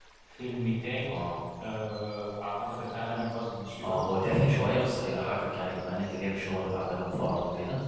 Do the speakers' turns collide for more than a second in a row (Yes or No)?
No